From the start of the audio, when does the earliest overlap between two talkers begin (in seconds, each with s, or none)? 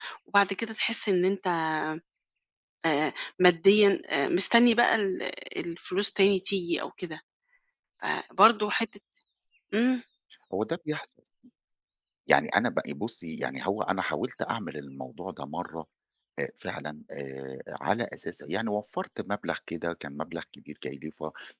none